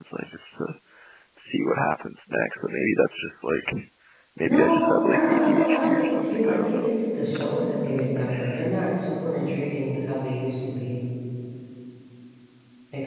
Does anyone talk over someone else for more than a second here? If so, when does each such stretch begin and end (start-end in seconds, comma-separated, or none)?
4.5-6.9